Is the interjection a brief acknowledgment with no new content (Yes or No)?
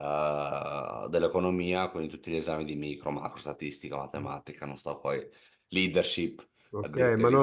No